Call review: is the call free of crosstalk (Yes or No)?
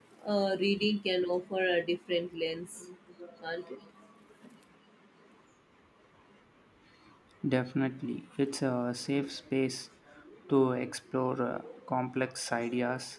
Yes